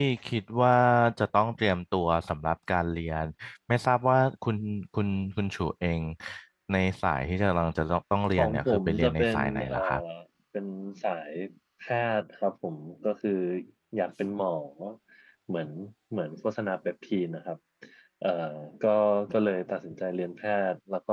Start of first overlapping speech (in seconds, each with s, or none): 8.4 s